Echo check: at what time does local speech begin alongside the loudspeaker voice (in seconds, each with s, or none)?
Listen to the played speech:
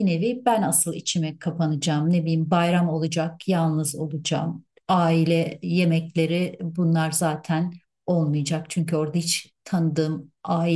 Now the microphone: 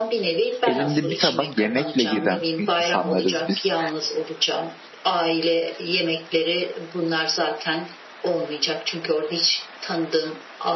0.7 s